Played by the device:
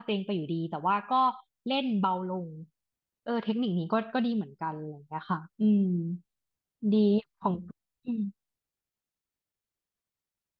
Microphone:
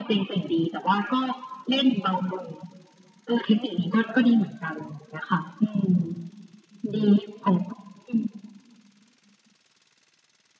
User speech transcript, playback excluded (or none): none